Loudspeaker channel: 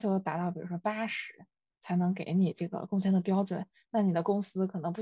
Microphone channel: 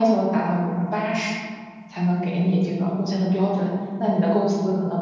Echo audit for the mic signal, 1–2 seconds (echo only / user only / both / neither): echo only